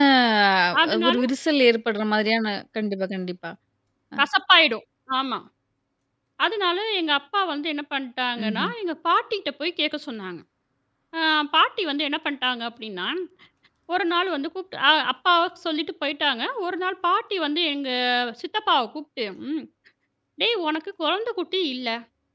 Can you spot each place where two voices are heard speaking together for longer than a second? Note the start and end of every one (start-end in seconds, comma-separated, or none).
none